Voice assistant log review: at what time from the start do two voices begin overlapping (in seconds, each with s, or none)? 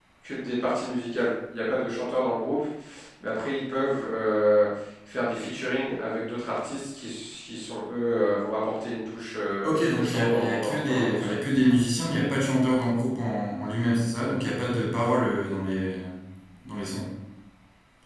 9.6 s